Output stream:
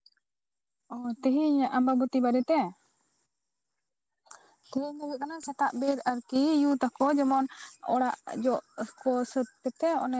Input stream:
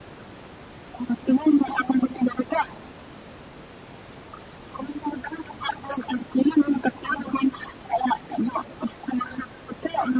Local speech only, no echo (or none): none